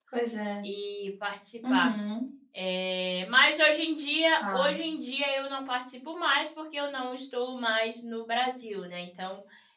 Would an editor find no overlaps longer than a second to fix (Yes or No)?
Yes